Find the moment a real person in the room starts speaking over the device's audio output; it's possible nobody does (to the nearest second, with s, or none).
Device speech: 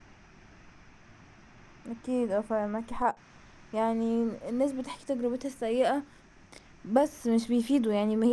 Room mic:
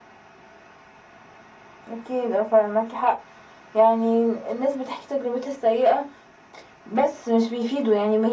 none